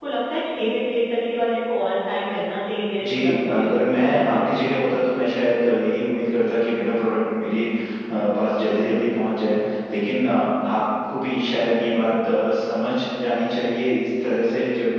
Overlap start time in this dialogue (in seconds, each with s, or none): 3.0 s